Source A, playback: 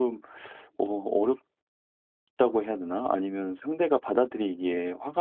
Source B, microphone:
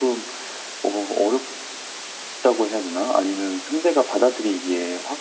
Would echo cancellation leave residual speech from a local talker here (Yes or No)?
No